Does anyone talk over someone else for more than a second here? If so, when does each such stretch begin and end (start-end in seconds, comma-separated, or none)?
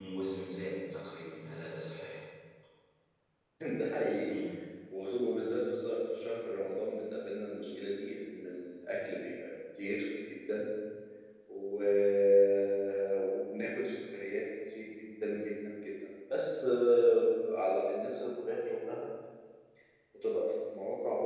none